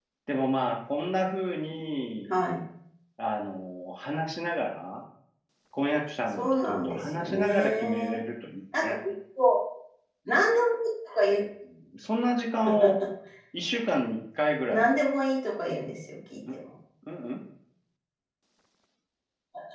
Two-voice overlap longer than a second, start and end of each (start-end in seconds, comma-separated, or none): 6.4-8.2